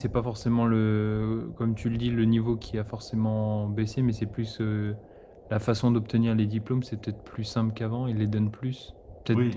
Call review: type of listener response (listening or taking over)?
taking over